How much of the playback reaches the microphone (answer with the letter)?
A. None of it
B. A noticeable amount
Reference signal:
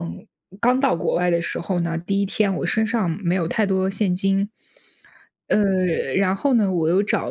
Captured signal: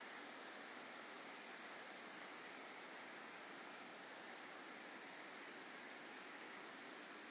A